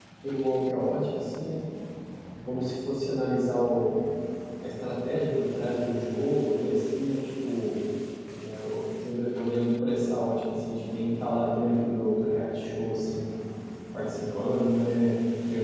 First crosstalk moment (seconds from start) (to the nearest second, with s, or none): none